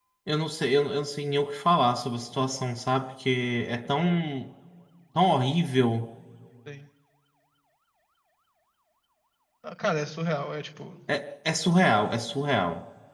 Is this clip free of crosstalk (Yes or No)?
Yes